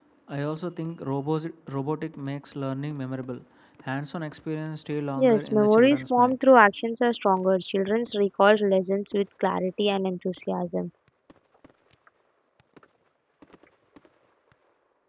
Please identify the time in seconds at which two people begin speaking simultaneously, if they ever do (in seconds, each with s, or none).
5.2 s